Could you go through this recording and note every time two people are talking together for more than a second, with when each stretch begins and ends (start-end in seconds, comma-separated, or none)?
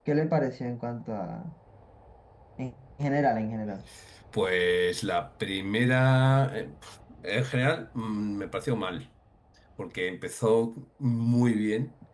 none